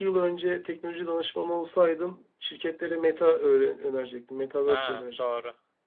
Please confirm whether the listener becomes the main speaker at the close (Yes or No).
Yes